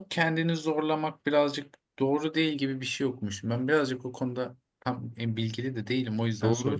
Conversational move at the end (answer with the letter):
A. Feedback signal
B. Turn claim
B